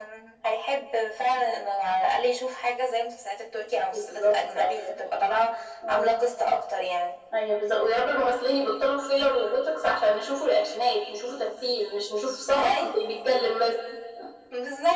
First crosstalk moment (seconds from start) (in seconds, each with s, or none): 3.9 s